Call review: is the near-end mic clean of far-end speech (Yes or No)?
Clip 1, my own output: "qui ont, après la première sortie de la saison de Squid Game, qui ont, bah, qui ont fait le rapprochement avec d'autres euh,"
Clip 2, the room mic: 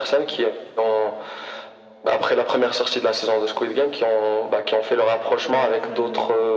No